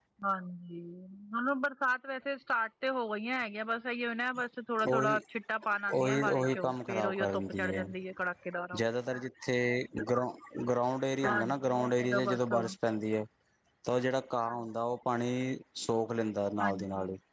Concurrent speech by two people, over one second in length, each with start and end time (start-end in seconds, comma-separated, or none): 5.9-7.9, 11.2-12.5